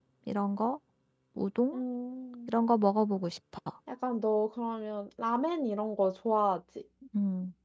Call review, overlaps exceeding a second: none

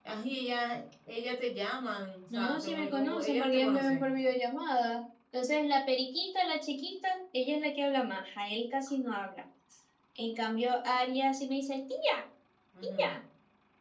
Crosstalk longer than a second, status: present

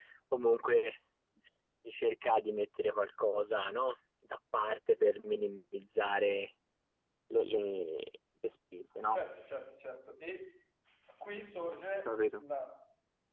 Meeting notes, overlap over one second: none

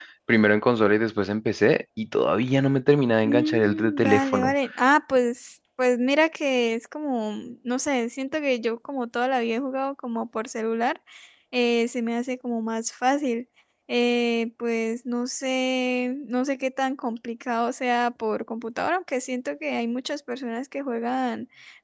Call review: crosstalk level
present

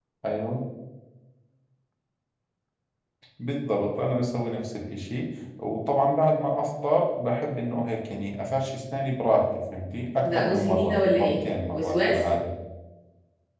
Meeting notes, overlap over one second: present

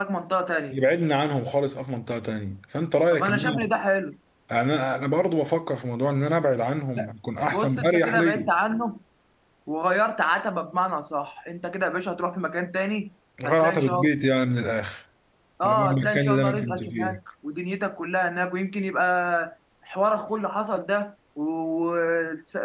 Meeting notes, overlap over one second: present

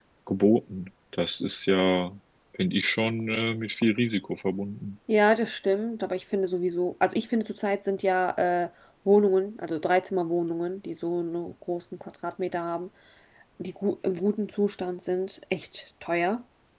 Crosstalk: none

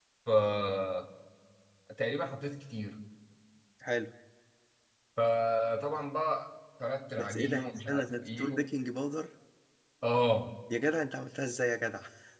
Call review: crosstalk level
present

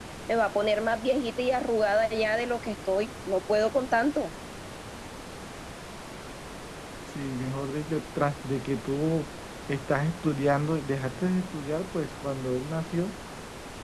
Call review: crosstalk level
none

